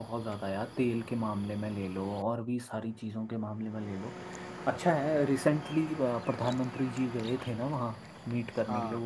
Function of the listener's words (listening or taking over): listening